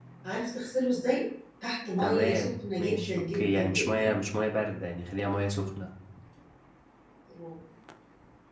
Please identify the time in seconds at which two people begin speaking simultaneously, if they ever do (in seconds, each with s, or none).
2.0 s